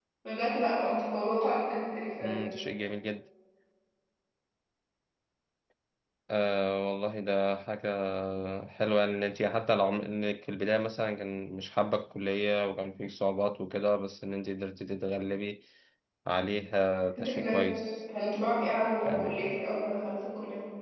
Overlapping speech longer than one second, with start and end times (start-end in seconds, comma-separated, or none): none